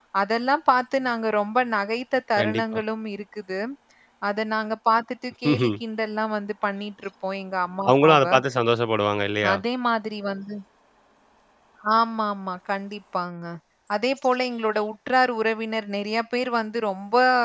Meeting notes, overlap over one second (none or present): none